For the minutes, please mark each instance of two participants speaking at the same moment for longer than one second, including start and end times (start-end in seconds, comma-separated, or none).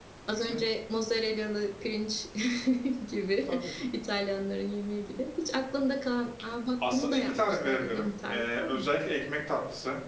6.9-8.9